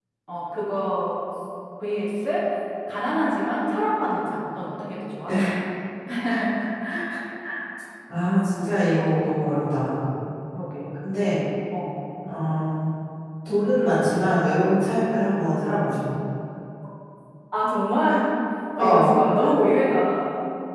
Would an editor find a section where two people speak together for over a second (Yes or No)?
No